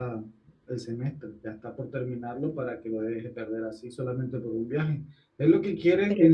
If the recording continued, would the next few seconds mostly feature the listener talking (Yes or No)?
No